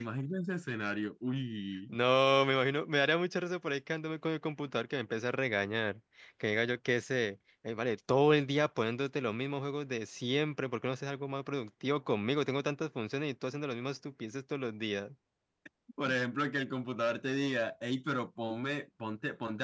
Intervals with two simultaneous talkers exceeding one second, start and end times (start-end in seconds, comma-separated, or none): none